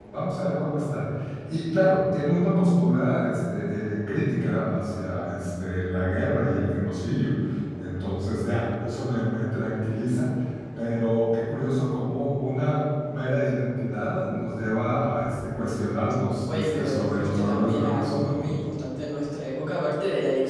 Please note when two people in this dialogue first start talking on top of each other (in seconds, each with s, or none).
16.5 s